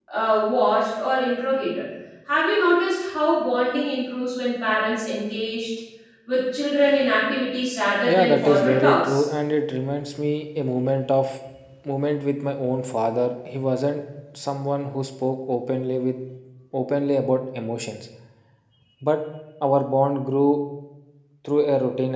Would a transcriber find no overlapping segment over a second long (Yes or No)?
No